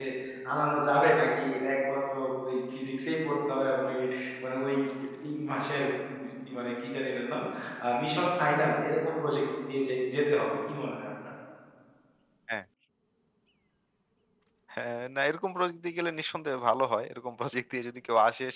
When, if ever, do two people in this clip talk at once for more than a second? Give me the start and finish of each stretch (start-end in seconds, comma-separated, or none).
none